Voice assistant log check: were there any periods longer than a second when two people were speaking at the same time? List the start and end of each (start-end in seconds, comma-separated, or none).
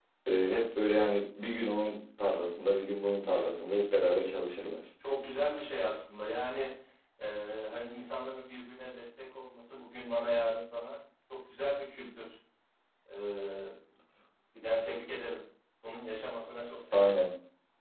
none